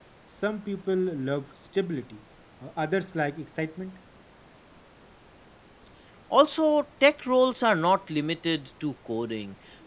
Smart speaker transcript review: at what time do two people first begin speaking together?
none

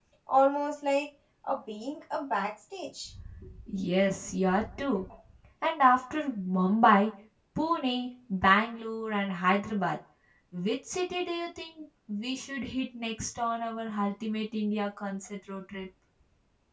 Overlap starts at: none

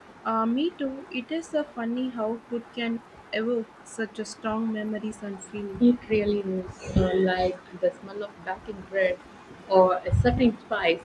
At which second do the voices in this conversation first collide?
none

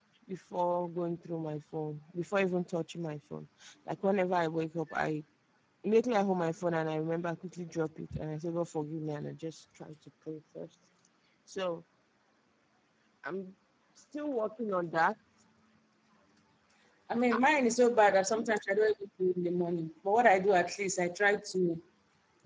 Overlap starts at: none

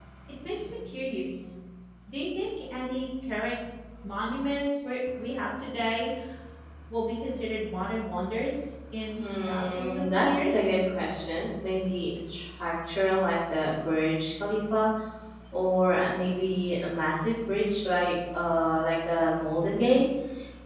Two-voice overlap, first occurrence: 9.1 s

